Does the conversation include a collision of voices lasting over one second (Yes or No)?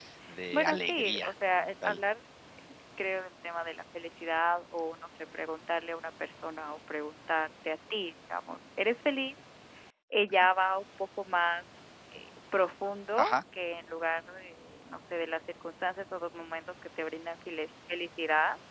Yes